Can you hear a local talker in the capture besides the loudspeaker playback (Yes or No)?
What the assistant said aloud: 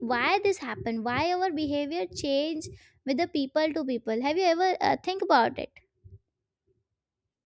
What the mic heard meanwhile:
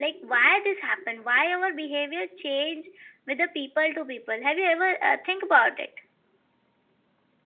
No